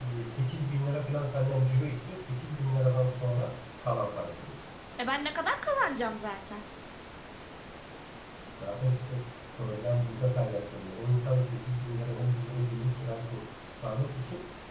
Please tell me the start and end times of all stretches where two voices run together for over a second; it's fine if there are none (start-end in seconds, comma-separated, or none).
none